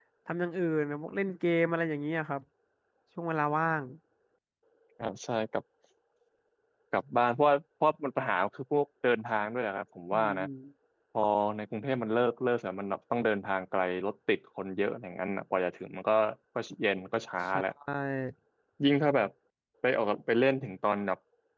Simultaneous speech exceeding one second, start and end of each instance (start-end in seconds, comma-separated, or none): none